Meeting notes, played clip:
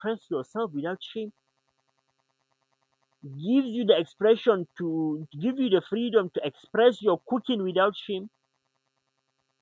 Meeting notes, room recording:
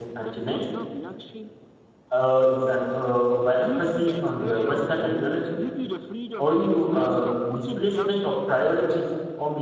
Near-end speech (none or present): present